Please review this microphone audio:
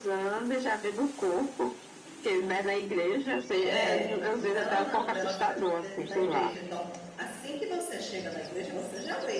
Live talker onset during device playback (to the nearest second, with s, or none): 4 s